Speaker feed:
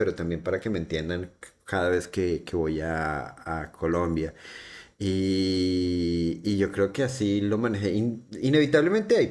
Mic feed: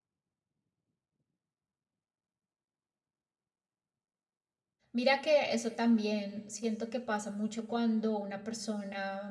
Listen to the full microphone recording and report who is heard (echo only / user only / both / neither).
user only